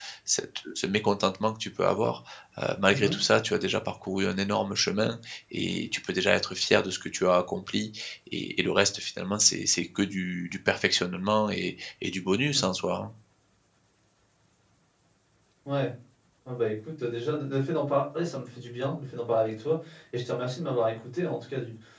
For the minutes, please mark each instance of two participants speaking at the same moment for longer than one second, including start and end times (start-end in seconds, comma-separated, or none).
none